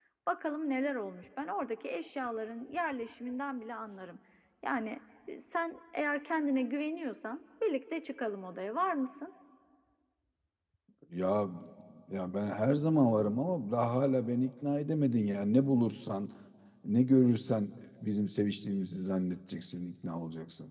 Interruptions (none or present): none